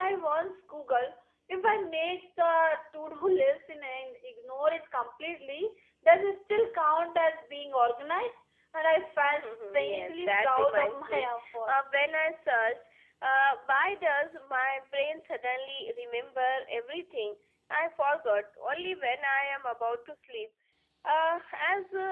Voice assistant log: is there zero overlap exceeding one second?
No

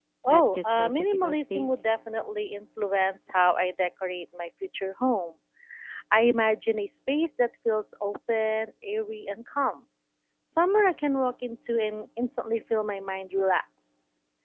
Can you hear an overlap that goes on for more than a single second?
Yes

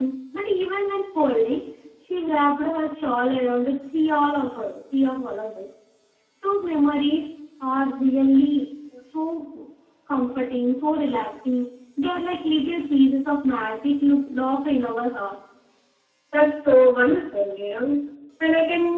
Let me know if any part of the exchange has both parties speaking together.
No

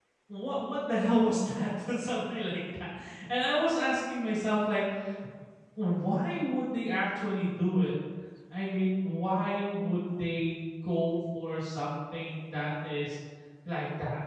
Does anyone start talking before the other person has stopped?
No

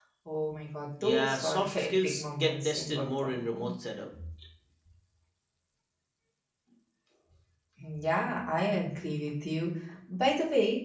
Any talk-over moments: Yes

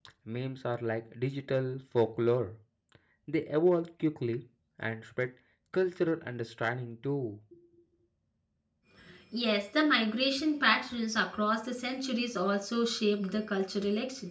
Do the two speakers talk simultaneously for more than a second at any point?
No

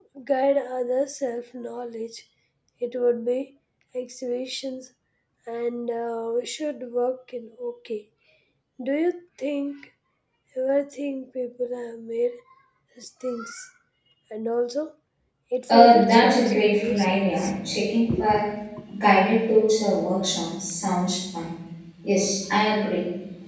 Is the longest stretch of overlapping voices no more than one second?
No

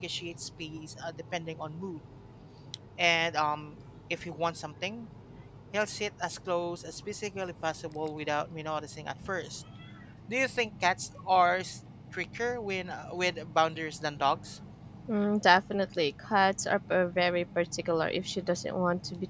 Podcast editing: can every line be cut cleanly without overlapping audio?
Yes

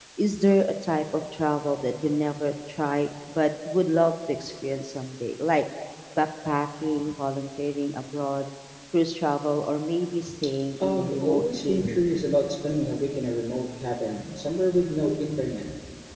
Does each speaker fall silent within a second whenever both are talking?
No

